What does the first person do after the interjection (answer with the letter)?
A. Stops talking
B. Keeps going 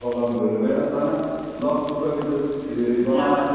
B